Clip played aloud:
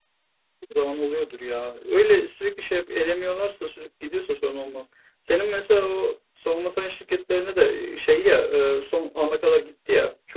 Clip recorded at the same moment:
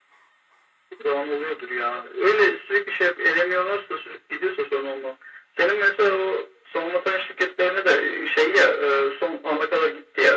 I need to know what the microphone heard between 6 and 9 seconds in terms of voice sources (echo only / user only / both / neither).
echo only